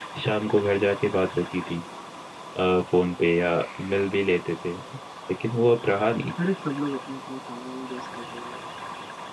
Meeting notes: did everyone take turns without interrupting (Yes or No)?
Yes